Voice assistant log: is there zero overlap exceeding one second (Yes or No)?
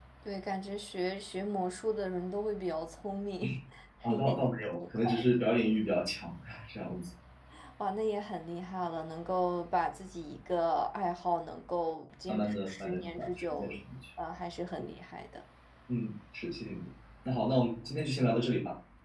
No